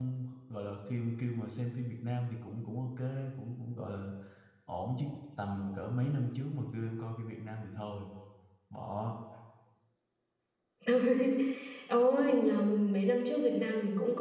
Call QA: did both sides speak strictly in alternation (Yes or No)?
Yes